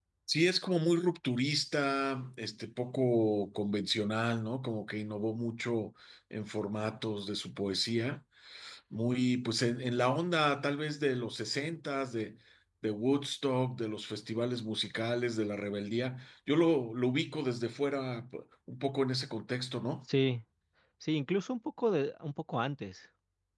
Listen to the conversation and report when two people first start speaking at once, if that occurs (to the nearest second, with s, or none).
none